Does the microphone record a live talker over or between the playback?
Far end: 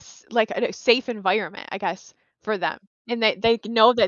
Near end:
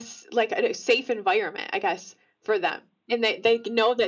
No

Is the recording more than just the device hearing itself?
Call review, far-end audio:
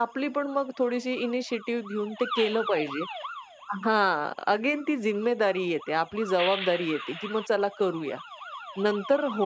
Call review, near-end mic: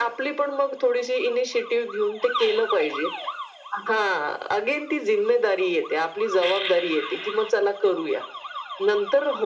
No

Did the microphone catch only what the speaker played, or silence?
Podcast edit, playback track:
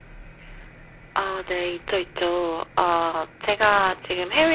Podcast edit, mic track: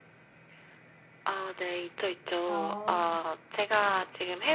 No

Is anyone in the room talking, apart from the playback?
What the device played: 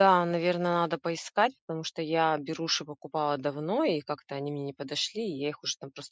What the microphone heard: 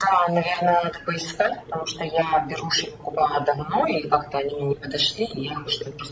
No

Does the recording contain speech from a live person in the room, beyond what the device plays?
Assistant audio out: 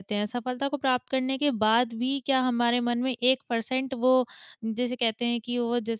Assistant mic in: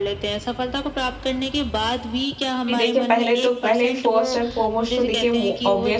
Yes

